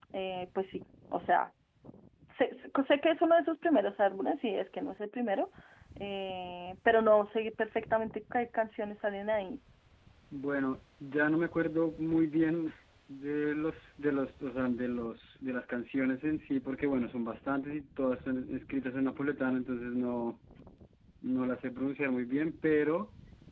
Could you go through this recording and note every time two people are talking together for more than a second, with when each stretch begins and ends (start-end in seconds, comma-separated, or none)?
none